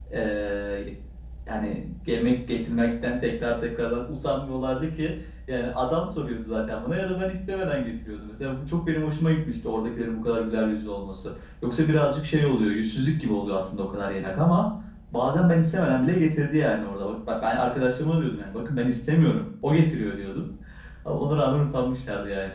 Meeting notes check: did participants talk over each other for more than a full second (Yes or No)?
No